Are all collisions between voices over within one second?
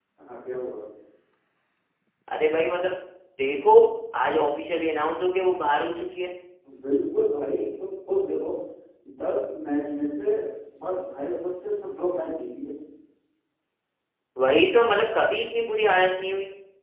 Yes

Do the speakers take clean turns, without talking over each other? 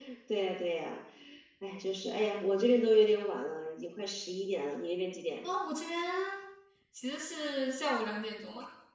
Yes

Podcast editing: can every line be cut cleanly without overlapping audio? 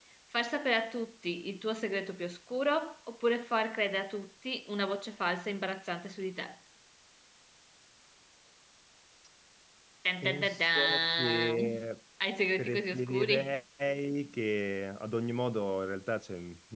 No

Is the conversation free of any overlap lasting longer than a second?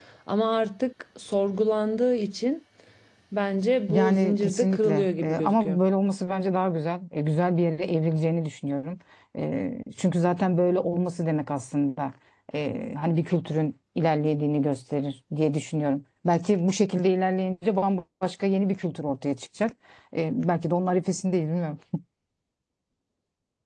No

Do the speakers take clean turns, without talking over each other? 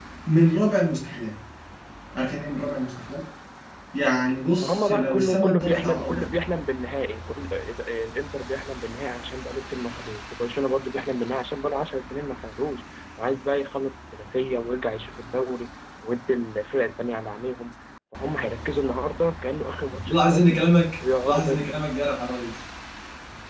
No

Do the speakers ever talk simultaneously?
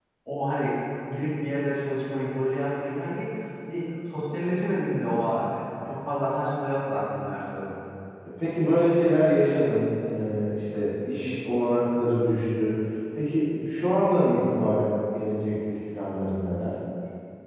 No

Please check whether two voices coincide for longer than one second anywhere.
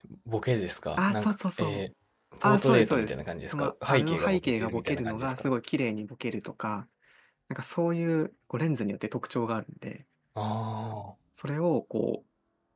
Yes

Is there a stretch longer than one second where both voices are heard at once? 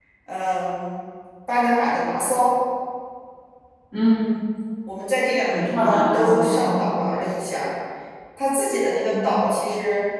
Yes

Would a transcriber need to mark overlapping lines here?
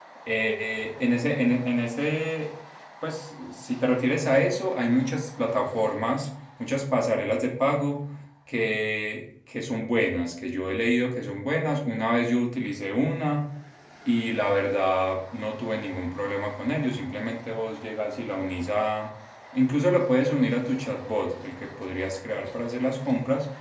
No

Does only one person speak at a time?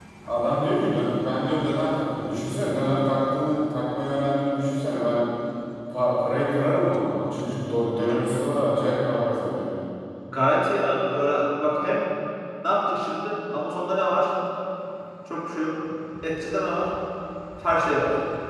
Yes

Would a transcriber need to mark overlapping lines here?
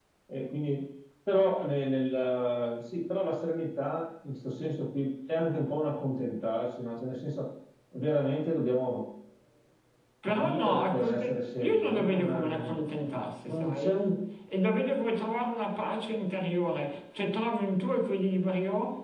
Yes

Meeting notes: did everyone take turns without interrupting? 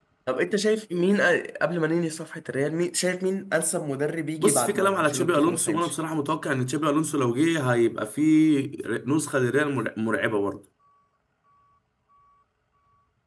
No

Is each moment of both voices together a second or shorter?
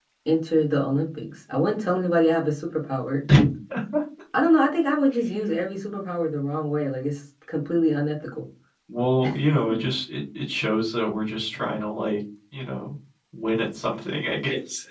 Yes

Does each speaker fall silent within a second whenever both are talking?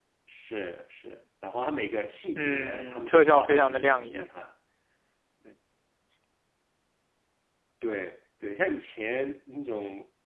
No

